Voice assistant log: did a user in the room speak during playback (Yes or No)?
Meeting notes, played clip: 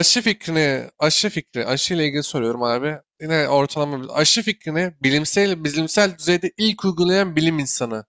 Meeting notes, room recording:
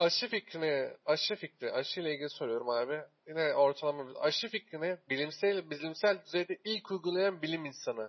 No